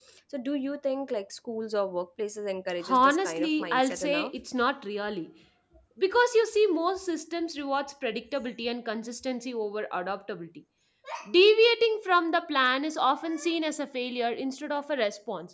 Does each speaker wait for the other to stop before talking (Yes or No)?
No